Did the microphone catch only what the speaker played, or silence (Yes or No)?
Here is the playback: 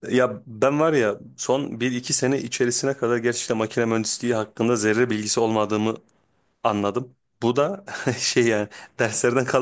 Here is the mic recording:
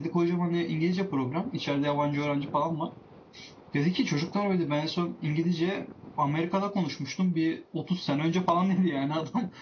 No